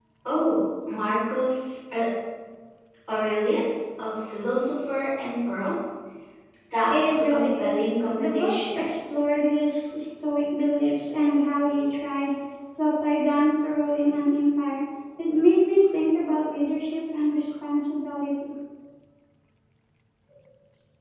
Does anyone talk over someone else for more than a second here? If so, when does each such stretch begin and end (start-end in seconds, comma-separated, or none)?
6.9-8.8